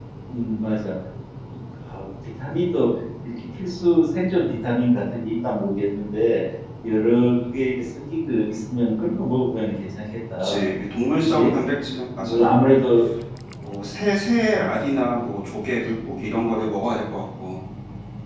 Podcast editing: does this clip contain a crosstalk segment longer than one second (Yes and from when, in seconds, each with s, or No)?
No